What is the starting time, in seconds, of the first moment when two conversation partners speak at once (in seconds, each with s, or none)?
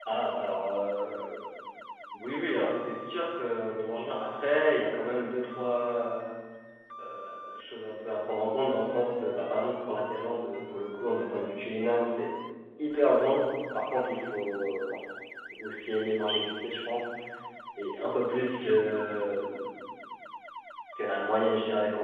none